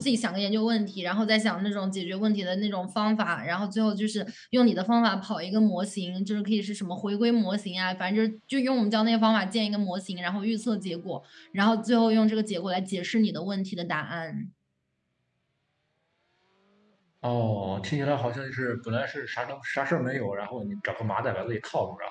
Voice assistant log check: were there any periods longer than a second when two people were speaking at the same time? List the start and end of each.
none

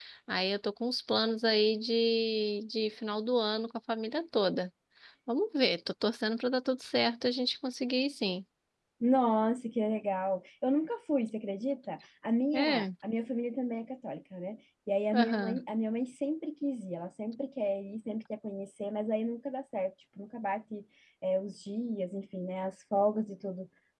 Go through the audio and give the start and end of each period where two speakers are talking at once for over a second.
none

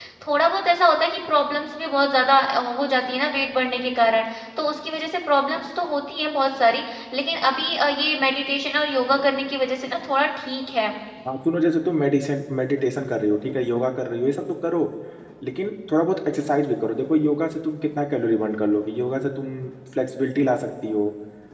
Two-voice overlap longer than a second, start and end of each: none

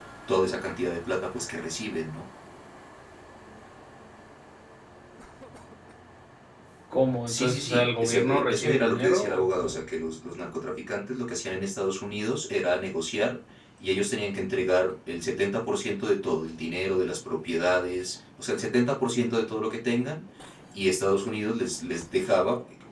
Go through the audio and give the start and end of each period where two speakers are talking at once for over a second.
7.3-9.8

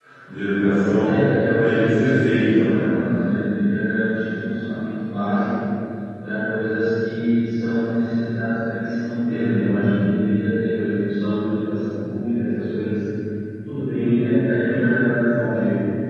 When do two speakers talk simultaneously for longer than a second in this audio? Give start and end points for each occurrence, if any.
1.6-2.9

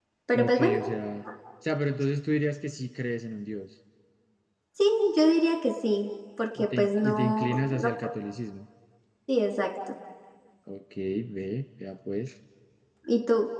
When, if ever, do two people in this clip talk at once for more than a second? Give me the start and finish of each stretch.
6.6-8.1

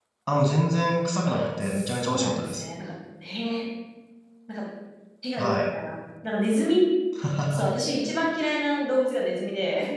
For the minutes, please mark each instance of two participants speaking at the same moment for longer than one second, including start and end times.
1.3-2.6

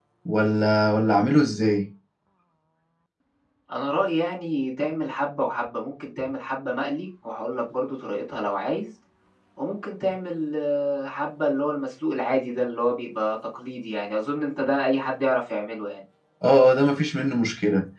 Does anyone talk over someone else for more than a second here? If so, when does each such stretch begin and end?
none

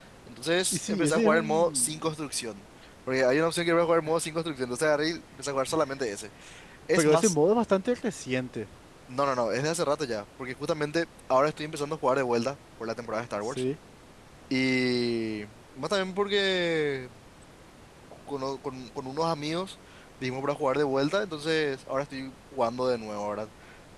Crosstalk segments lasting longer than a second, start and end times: 0.7-2.1

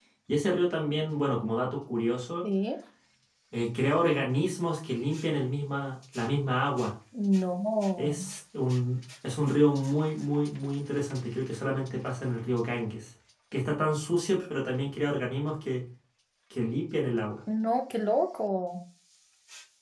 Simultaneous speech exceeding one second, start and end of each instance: none

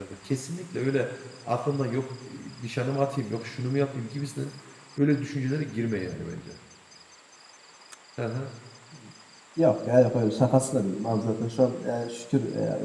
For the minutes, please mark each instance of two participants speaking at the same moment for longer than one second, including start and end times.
none

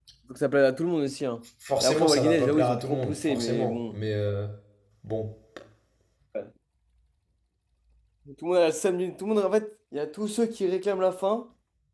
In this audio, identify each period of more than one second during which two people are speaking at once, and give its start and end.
1.8-4.0

